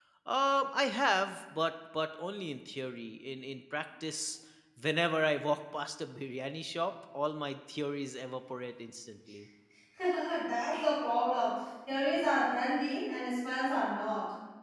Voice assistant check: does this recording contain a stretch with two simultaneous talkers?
No

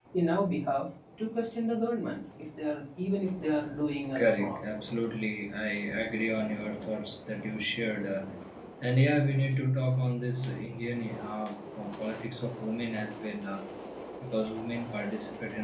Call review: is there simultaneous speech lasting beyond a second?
No

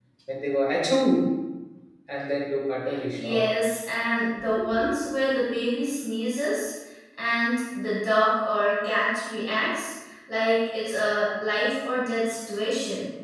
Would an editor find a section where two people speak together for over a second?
No

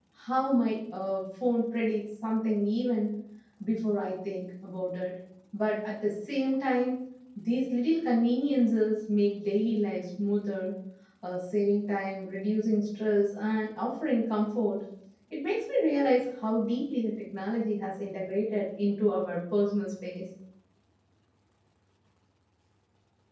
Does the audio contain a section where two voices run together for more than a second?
No

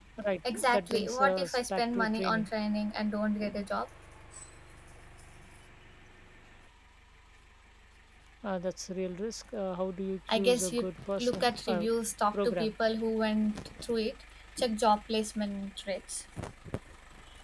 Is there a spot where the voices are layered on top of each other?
Yes, from 0.5 s

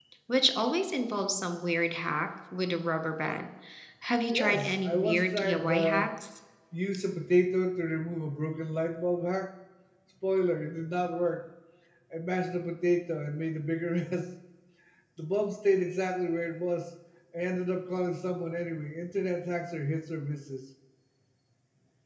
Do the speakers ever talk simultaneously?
Yes, from 4.3 s

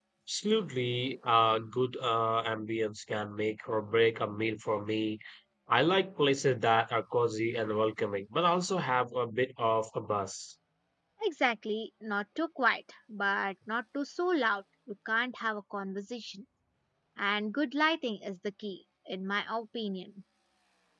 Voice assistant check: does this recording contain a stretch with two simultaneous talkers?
No

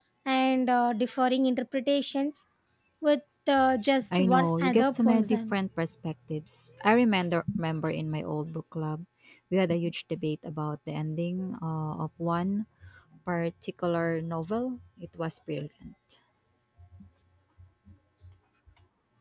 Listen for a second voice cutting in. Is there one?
Yes, from 4.1 s

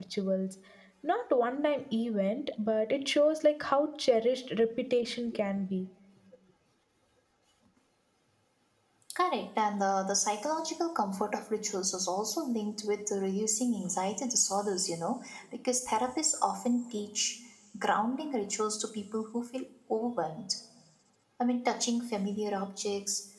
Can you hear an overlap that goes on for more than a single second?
No

